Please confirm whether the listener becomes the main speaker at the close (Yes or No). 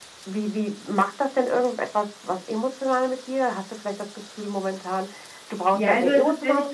Yes